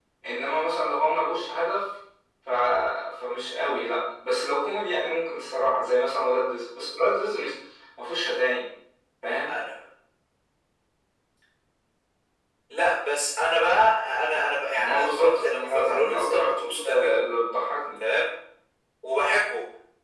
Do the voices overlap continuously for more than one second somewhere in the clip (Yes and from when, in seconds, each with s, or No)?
Yes, from 14.7 s